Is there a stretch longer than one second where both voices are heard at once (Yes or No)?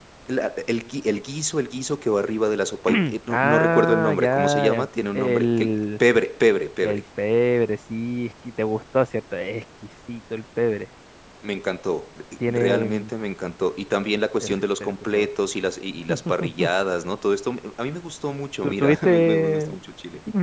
Yes